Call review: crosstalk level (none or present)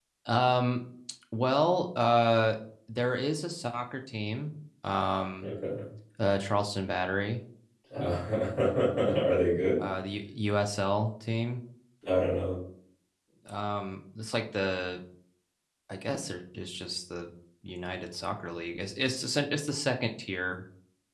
none